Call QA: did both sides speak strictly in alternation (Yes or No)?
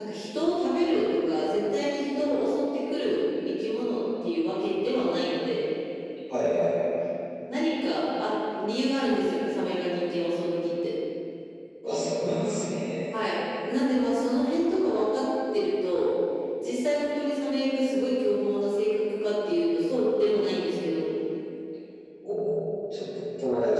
Yes